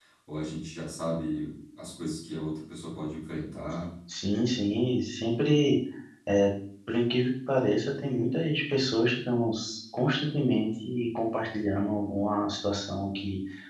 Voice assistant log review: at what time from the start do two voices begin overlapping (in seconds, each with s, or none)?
none